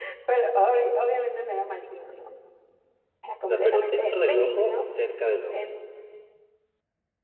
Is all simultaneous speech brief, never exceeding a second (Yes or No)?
No